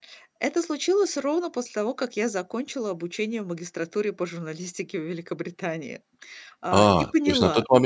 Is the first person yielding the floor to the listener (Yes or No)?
Yes